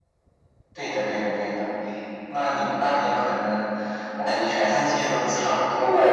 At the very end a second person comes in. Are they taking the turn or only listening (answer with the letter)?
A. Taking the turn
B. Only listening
A